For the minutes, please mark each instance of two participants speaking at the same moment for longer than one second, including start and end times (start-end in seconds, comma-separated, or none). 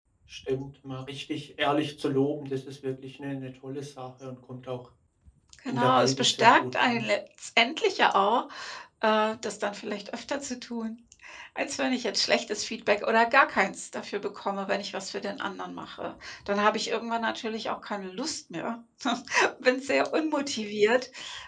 5.7-7.0